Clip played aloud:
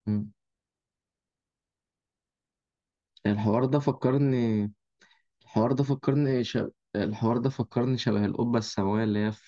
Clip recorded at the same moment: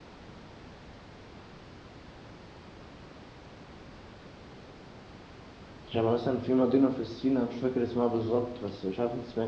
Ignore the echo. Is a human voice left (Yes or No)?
Yes